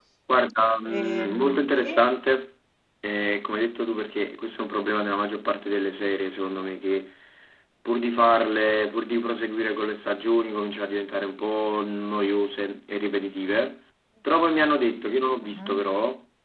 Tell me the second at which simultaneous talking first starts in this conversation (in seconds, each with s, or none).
0.8 s